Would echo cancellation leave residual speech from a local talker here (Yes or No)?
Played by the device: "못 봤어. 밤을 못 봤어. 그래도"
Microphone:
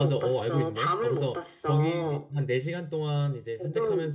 Yes